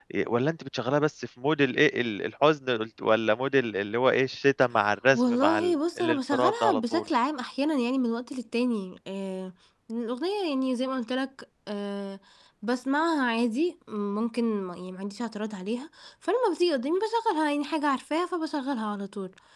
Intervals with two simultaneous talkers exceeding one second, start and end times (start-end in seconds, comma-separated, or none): 5.1-7.0